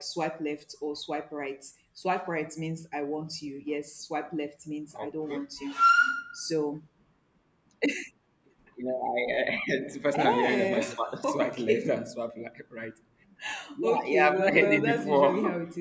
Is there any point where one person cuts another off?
Yes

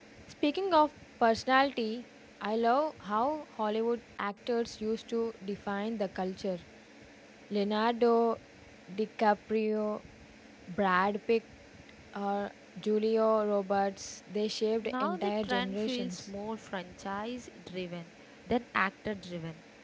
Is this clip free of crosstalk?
No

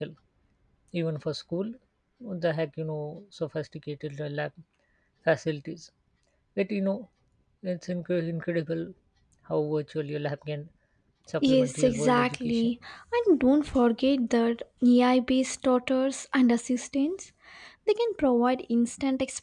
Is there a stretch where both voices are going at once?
Yes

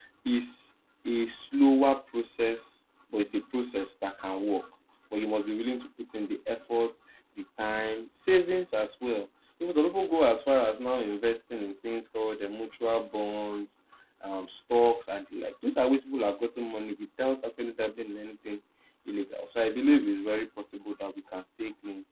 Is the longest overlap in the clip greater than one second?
No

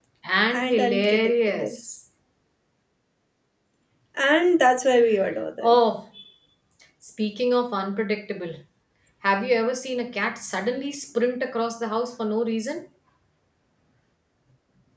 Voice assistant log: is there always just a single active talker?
No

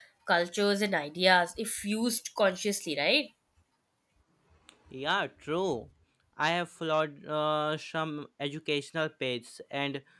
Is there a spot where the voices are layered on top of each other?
No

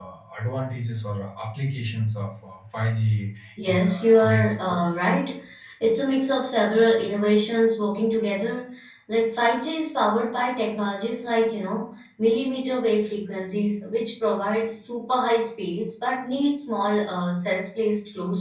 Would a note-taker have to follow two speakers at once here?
Yes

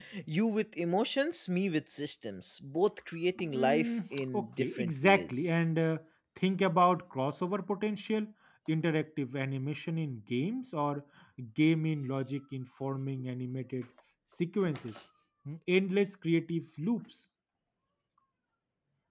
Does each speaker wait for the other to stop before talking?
No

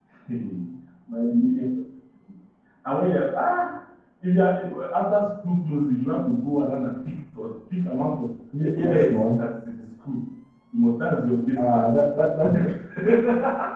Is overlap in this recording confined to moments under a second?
Yes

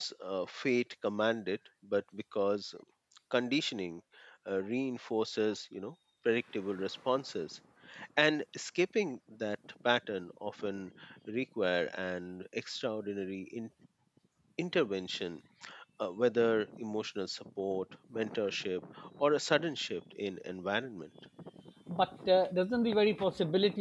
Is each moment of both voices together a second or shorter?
Yes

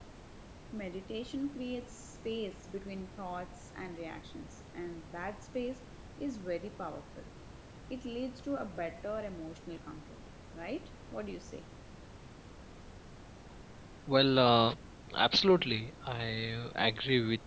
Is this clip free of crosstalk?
Yes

